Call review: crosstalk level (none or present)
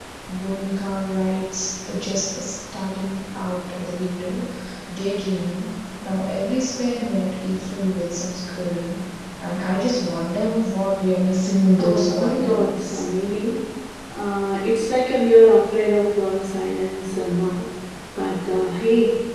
present